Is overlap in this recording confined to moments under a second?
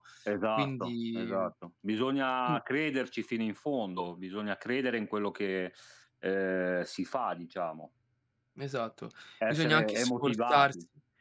No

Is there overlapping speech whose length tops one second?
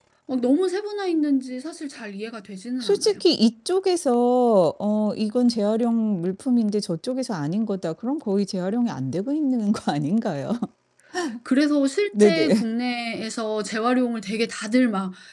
No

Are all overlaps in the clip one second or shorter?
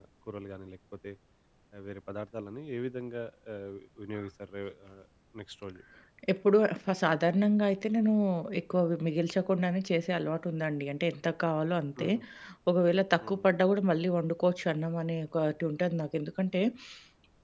Yes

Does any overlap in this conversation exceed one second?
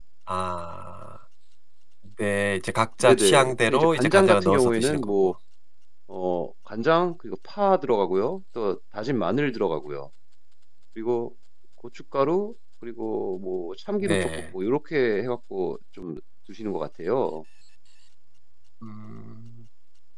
Yes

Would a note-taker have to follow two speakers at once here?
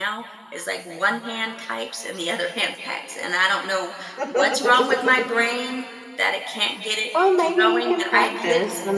Yes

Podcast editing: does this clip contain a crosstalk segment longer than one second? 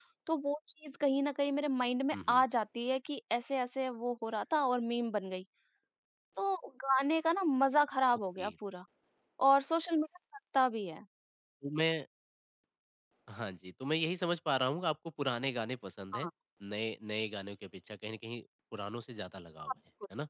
No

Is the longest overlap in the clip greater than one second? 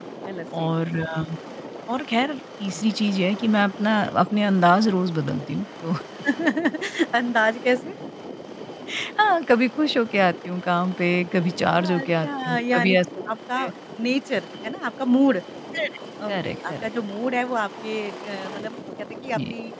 Yes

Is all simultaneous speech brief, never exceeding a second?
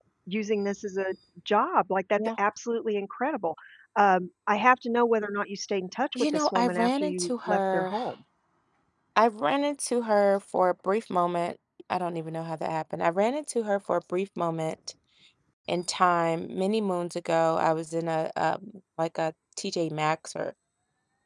No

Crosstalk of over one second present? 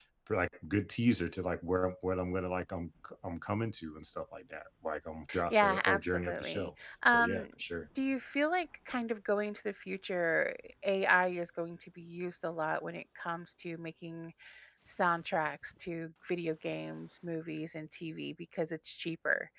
Yes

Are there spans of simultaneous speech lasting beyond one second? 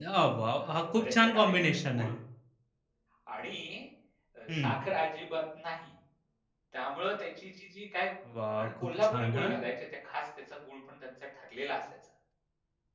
Yes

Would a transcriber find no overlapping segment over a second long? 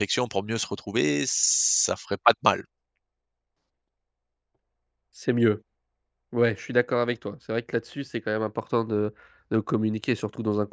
Yes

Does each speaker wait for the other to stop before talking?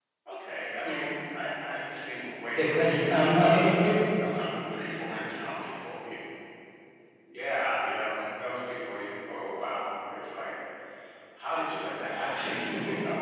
No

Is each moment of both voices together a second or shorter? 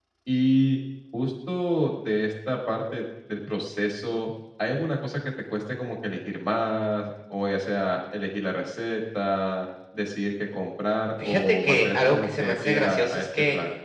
No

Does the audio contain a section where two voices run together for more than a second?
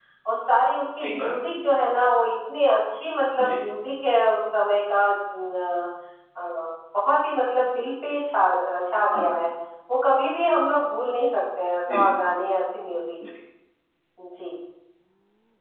No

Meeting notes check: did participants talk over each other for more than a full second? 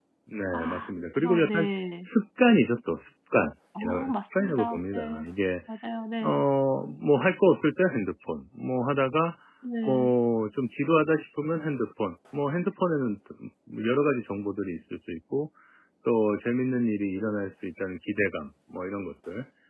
Yes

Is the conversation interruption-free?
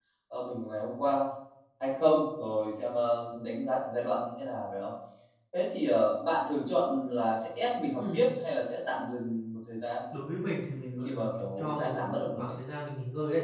No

